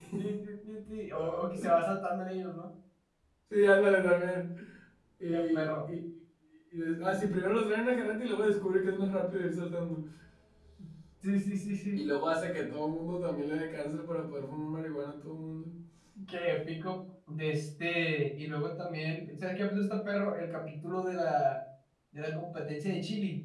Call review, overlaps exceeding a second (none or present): none